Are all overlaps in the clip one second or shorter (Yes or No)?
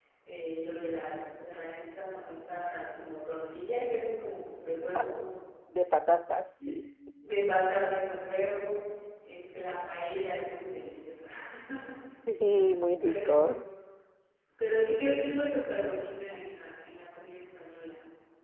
Yes